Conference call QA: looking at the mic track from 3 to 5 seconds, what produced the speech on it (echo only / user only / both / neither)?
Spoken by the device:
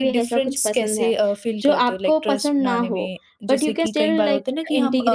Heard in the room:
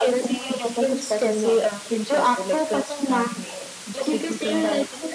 echo only